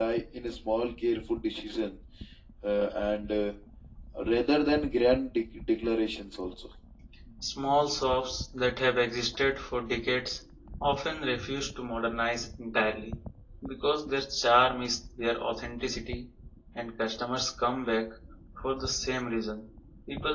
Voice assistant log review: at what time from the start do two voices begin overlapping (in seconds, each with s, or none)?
none